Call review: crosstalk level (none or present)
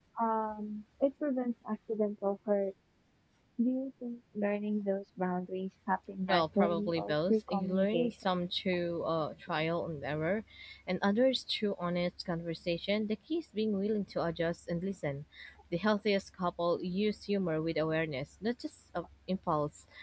present